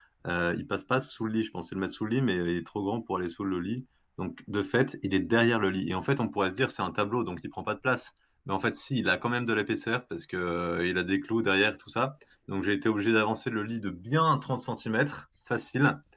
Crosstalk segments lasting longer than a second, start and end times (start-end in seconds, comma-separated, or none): none